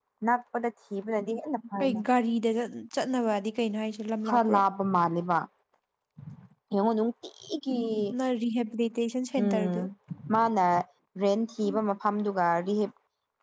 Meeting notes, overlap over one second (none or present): none